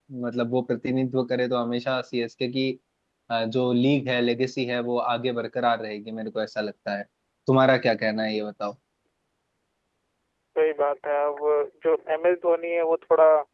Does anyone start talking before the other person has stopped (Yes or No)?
No